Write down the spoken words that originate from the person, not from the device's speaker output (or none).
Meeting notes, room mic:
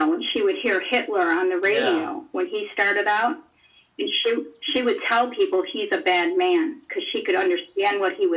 yeah,